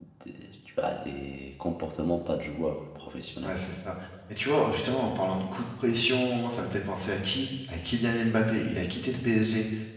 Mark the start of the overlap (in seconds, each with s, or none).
none